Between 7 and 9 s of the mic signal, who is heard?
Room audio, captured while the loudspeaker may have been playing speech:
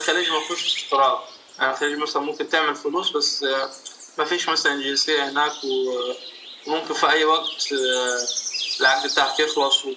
echo only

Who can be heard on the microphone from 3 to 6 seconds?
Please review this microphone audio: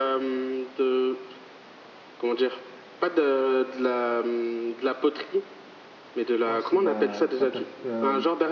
echo only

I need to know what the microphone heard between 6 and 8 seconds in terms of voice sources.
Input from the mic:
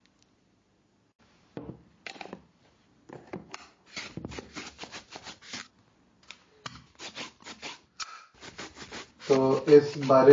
neither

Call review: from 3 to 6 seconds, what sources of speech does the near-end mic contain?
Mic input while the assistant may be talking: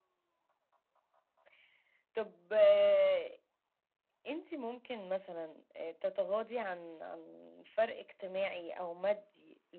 echo only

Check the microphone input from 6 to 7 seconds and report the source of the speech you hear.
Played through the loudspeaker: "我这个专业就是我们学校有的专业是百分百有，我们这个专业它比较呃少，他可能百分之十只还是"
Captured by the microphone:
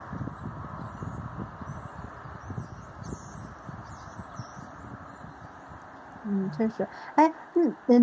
user only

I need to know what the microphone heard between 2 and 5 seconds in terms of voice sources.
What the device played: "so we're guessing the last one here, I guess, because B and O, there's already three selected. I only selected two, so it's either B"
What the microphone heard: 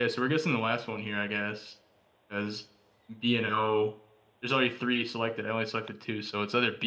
echo only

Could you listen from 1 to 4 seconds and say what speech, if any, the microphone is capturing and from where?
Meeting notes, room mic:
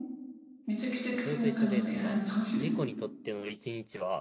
both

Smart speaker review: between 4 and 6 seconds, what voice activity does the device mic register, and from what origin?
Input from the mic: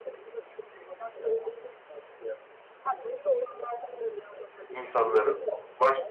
both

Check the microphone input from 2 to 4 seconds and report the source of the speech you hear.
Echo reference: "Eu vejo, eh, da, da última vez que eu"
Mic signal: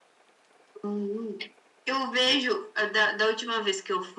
echo only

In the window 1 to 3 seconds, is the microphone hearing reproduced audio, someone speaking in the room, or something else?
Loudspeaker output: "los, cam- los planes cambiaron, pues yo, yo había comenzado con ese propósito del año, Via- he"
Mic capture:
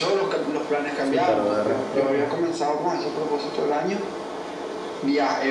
both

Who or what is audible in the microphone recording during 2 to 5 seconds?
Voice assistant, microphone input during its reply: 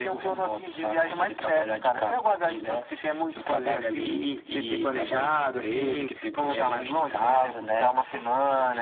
echo only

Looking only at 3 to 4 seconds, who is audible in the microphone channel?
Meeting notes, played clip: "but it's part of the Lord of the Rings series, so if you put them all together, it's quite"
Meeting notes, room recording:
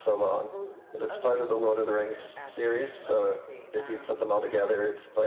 both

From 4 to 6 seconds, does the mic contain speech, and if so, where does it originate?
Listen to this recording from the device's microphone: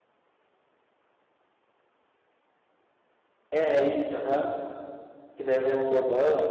user only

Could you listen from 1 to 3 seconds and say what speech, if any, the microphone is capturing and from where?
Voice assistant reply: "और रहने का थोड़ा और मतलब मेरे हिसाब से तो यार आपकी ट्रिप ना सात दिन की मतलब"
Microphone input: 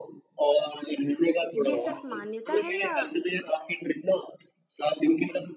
both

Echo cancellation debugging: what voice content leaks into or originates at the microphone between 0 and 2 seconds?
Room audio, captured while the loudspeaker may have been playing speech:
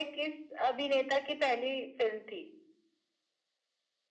echo only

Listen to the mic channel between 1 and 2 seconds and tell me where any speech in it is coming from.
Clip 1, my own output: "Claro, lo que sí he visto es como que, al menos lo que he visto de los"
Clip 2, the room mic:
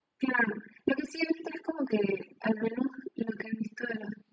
echo only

